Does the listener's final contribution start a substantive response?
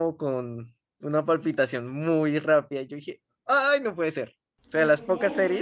No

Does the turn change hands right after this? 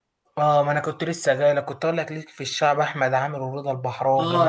Yes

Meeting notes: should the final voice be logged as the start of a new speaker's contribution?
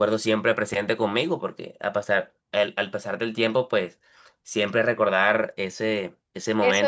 Yes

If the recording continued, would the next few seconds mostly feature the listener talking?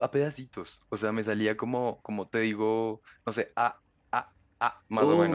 Yes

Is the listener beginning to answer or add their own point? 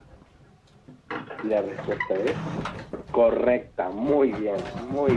Yes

